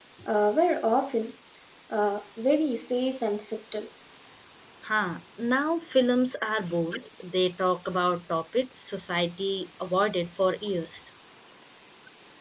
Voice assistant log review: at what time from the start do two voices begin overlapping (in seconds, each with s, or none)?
none